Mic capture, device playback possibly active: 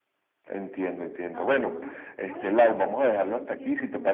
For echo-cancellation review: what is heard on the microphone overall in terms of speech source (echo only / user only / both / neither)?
both